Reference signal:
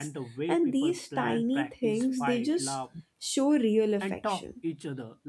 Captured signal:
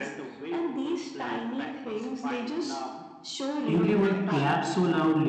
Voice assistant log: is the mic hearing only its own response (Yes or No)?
No